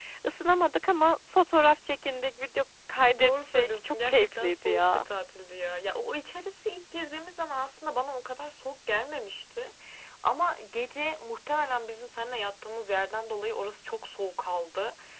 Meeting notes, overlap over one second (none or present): present